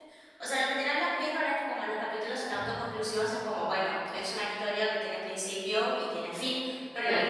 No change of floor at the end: Yes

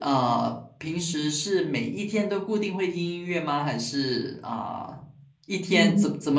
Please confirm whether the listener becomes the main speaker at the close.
No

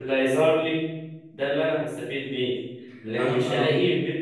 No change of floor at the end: Yes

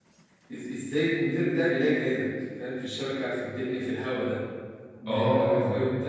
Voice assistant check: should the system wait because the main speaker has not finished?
Yes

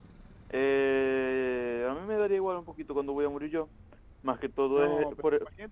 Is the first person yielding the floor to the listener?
Yes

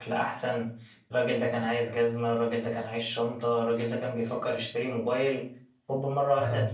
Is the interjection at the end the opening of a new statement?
Yes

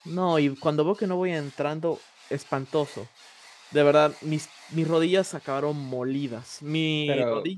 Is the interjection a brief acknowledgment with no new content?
Yes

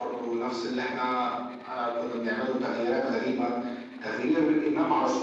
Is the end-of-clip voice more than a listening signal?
No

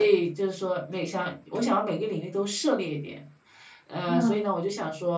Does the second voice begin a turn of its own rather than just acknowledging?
No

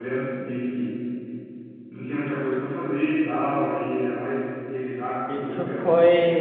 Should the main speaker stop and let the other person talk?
Yes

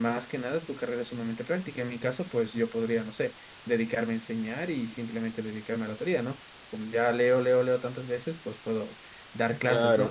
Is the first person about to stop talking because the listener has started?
No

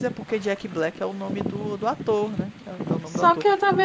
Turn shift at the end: Yes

